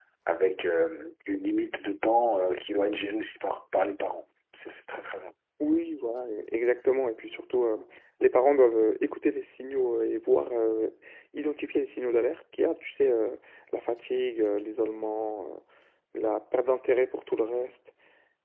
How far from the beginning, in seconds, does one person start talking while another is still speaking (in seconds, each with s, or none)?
none